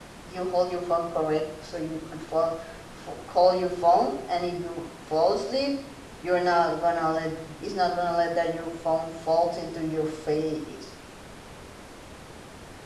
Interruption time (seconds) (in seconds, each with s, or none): none